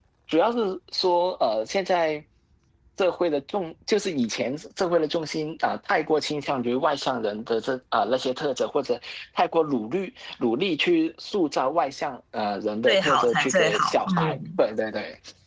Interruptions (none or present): present